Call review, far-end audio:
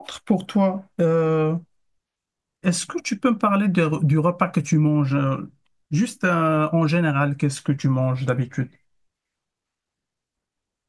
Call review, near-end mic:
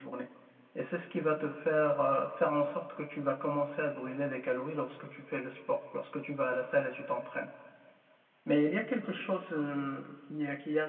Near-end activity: present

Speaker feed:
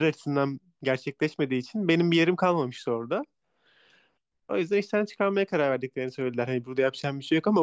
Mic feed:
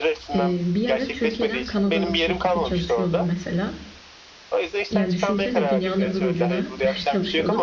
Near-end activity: present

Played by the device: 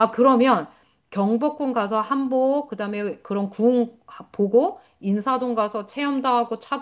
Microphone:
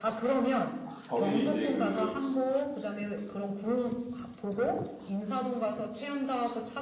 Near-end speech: present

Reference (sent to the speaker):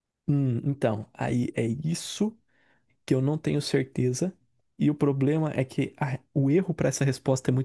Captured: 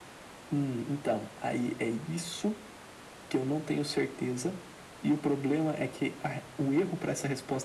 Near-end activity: none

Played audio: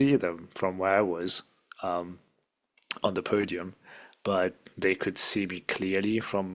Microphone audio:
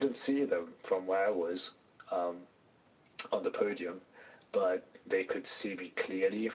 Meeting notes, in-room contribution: none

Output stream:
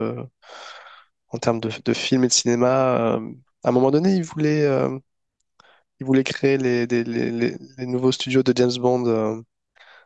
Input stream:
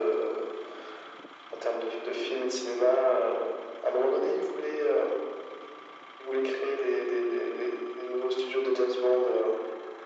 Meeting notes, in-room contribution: none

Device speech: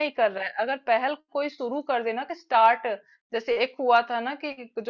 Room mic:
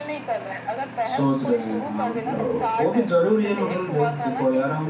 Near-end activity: present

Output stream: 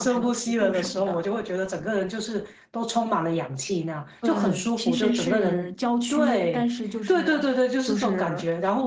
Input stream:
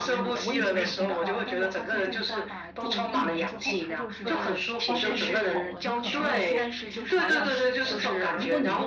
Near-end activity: present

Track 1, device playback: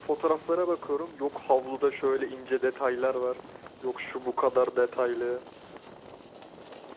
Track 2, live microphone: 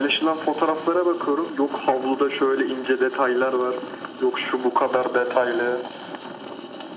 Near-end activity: none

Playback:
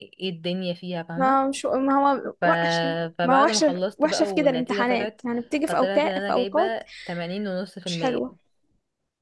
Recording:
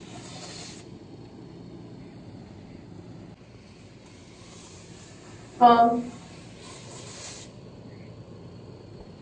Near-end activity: present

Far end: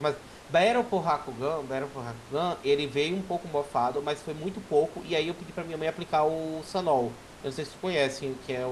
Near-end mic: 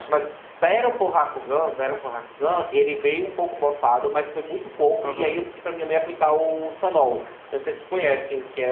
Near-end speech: present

